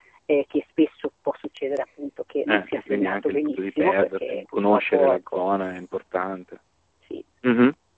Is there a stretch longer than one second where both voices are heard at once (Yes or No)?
Yes